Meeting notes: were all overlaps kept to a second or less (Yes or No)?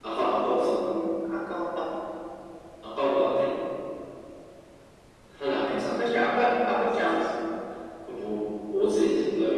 No